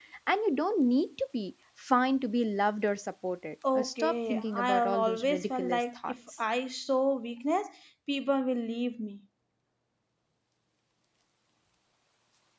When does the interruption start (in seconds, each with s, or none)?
3.6 s